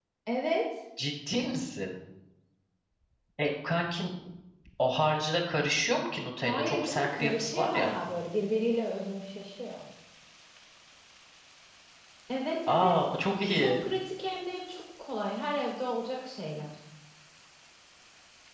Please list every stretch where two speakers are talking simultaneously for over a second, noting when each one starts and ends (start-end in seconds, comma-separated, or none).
6.4-7.9